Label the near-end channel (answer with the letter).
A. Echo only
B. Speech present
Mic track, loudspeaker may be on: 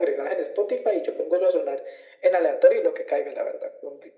A